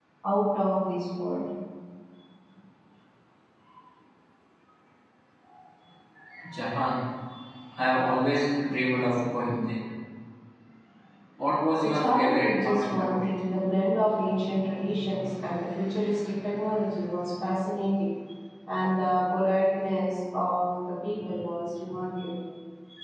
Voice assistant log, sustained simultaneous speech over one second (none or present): present